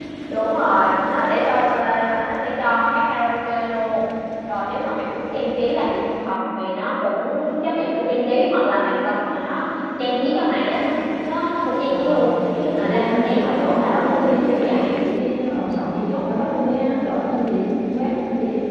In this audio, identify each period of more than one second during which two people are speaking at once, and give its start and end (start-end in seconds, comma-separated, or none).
12.8-15.0